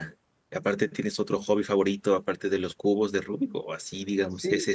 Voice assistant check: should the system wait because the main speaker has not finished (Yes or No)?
No